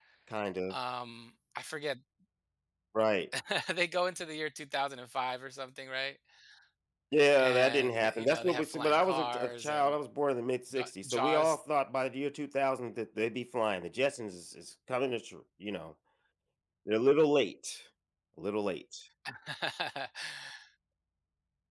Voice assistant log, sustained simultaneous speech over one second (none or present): present